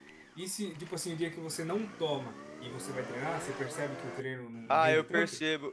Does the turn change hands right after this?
Yes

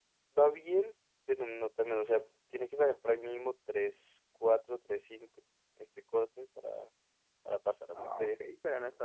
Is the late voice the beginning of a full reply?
Yes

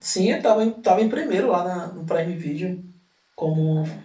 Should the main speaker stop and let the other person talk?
No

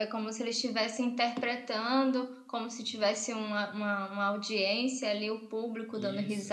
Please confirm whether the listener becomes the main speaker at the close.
No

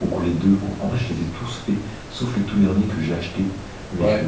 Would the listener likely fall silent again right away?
Yes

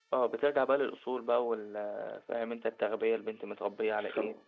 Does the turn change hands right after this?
Yes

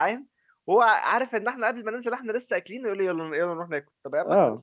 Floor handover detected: No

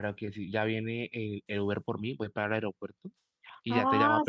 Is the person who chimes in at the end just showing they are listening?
No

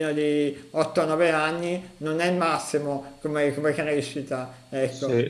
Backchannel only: No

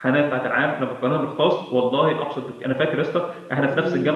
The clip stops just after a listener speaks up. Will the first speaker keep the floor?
Yes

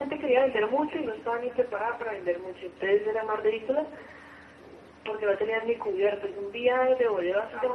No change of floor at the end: Yes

